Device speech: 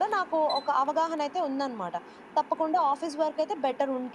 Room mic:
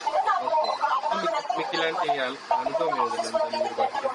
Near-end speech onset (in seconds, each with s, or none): 0.5 s